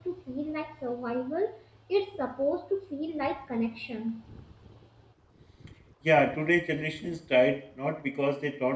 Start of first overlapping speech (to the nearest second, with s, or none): none